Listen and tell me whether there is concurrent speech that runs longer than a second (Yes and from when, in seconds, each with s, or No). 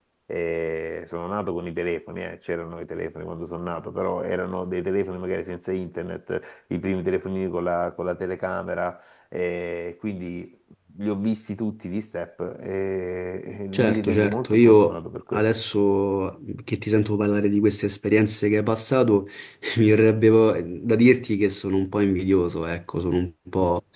Yes, from 13.7 s